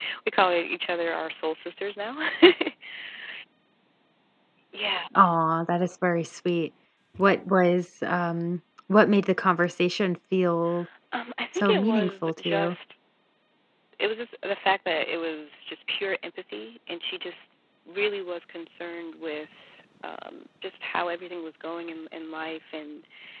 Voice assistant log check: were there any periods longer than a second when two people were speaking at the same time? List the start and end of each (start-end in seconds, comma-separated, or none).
11.5-12.8